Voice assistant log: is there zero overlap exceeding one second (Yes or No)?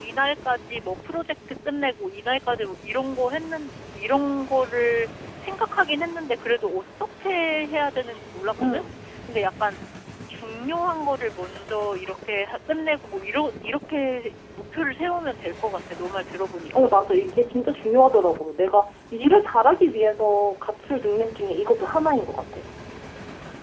Yes